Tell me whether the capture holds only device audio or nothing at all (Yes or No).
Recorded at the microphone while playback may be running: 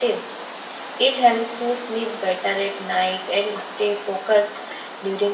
No